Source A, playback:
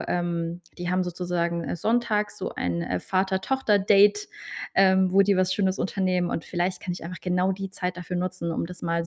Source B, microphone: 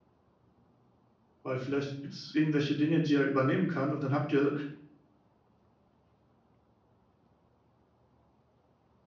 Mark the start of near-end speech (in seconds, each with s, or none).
1.4 s